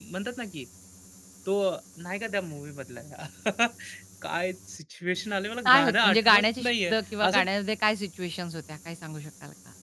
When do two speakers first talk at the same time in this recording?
5.7 s

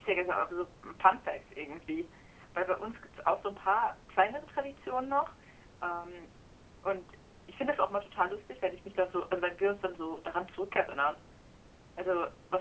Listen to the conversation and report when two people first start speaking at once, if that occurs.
none

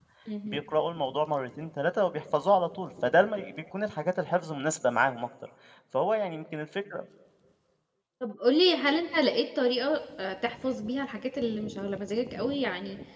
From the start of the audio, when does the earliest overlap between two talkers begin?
none

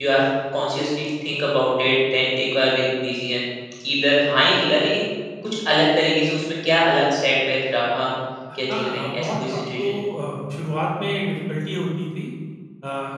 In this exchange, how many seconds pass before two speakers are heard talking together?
8.7 s

